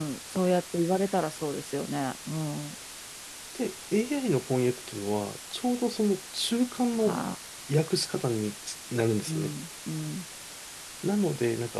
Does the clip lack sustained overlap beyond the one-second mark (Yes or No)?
Yes